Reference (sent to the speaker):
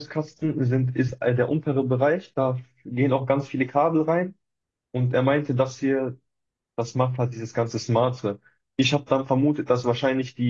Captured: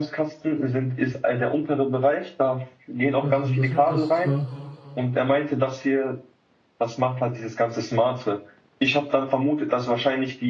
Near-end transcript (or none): krass. Also das macht das zwar